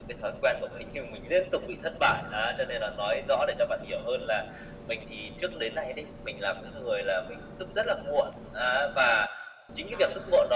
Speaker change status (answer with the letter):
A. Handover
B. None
B